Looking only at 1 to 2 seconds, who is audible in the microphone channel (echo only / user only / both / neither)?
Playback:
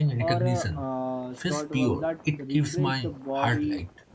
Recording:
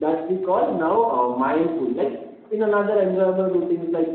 user only